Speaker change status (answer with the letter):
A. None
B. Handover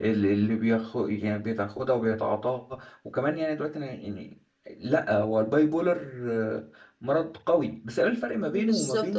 B